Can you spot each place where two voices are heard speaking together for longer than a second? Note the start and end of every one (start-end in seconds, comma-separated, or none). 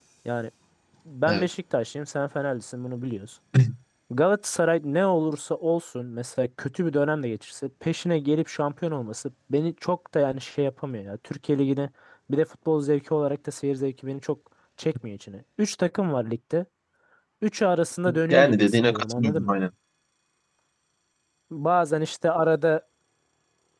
18.3-19.6